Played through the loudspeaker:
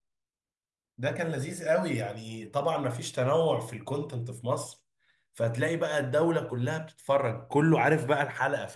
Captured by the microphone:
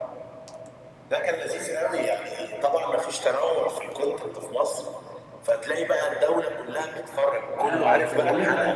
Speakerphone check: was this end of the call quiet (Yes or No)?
No